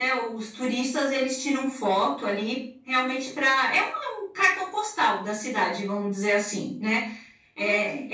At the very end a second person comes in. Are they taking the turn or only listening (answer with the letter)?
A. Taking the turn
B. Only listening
B